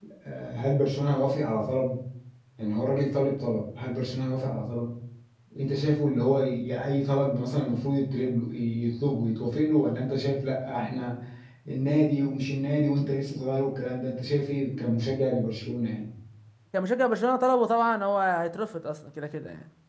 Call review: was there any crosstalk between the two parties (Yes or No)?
No